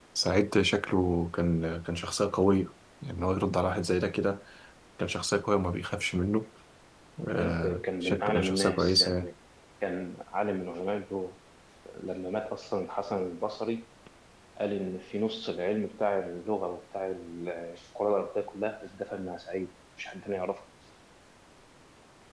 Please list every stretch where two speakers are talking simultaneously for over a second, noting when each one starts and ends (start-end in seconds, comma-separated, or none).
7.3-9.3